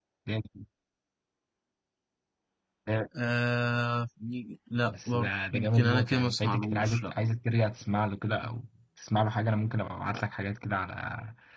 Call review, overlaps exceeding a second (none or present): present